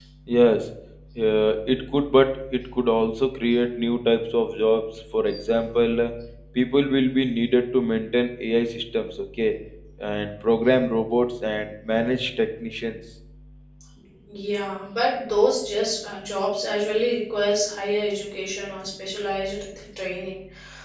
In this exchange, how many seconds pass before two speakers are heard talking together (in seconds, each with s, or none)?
none